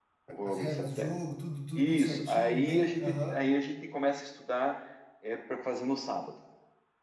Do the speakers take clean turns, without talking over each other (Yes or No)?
No